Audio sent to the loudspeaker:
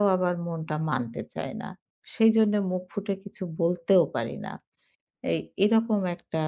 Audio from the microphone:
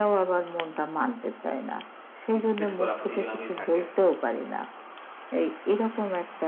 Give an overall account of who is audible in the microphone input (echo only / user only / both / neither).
both